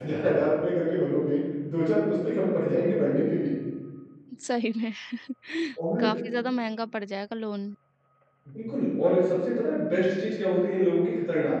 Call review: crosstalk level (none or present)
none